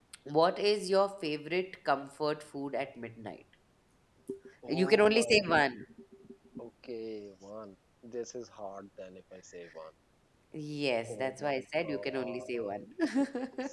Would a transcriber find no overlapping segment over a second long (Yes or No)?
No